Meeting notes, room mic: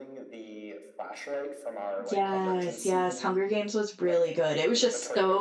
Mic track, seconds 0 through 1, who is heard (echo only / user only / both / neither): echo only